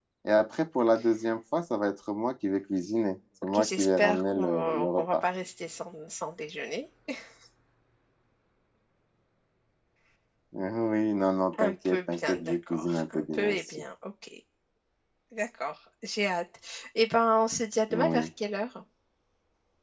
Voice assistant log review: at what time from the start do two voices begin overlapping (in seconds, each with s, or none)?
3.4 s